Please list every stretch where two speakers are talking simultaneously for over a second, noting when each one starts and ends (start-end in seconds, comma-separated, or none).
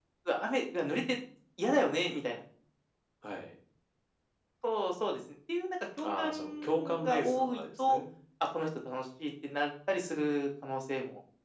6.0-8.0